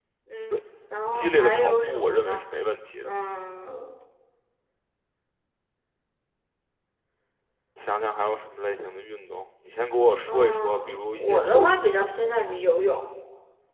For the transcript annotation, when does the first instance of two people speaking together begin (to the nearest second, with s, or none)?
1 s